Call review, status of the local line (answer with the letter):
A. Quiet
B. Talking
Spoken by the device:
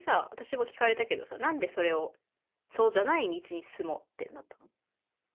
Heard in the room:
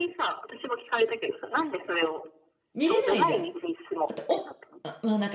B